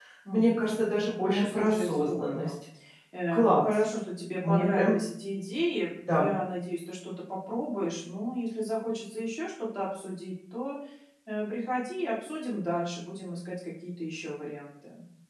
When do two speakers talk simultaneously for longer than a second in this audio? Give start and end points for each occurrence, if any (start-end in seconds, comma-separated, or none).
1.1-2.5